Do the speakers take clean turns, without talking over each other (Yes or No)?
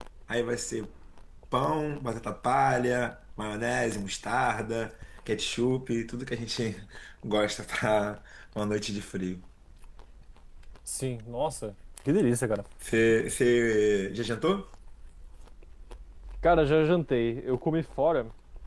Yes